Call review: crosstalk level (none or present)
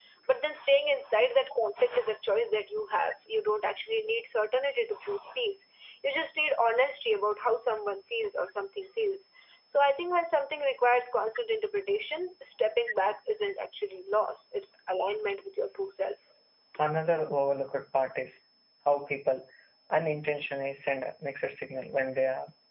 none